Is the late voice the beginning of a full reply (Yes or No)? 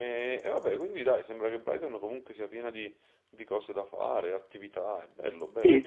Yes